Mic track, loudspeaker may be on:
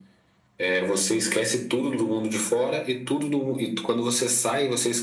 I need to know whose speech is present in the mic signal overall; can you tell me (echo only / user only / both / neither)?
echo only